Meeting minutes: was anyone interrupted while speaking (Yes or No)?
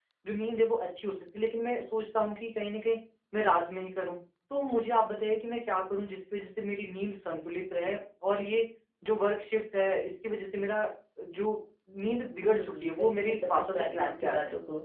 Yes